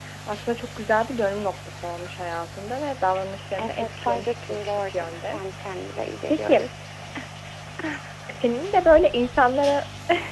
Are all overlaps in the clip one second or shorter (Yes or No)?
No